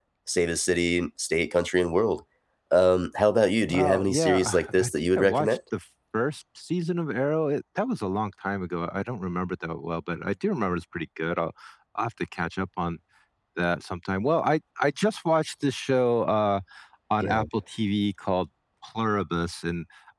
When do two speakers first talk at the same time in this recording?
3.7 s

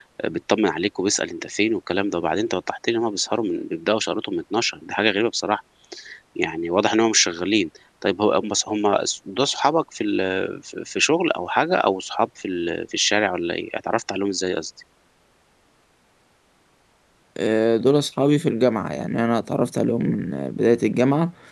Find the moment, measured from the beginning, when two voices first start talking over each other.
none

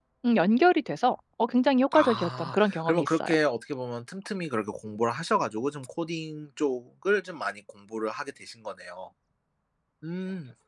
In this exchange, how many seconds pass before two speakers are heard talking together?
1.9 s

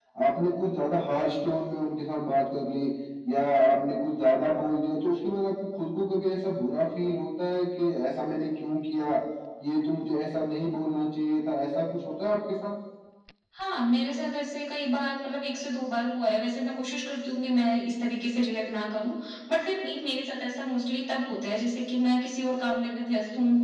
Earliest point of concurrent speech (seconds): none

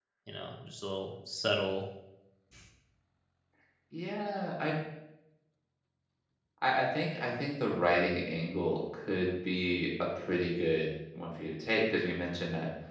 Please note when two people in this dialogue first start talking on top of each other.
none

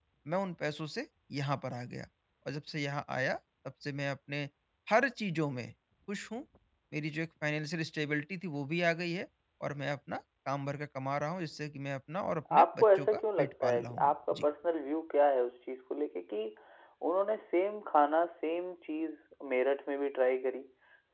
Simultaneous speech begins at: 12.5 s

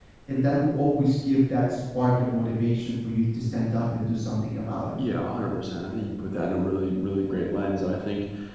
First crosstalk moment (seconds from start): none

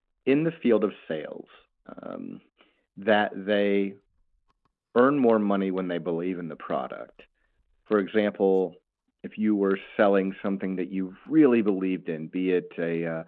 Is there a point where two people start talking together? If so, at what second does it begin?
none

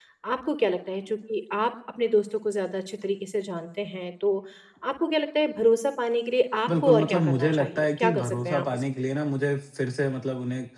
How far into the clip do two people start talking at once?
6.7 s

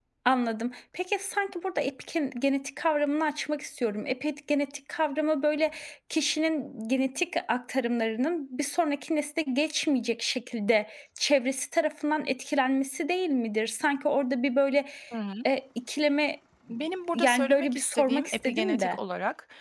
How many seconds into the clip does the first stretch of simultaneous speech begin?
17.1 s

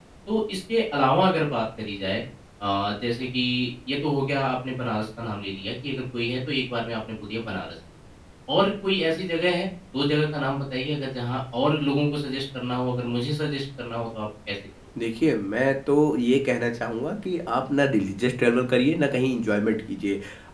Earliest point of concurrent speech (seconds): none

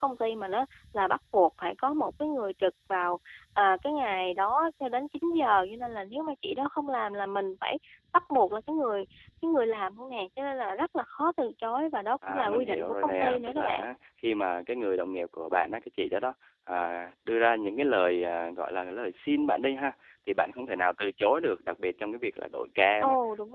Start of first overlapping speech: 12.2 s

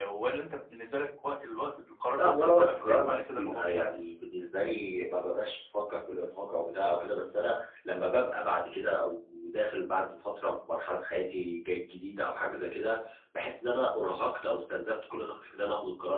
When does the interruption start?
2.2 s

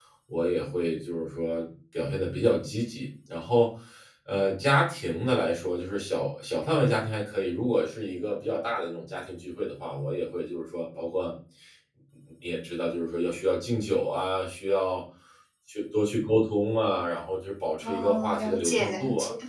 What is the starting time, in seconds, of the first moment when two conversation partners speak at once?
17.8 s

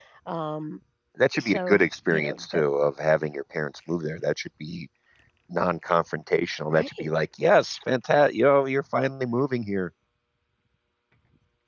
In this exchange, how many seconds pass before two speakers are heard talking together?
1.4 s

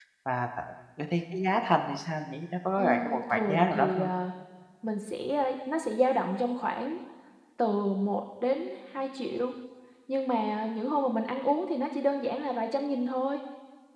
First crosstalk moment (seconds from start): 2.8 s

